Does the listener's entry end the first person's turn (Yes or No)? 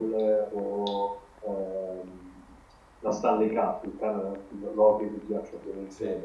No